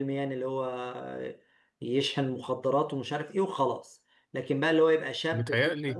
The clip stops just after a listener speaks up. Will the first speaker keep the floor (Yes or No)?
Yes